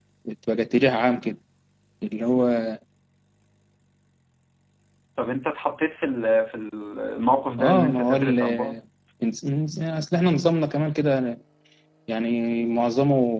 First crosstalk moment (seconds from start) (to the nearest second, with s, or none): 8 s